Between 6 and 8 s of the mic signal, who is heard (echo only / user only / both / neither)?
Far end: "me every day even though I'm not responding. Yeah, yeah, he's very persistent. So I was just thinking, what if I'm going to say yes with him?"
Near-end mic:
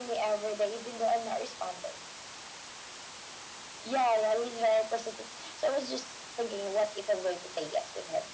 echo only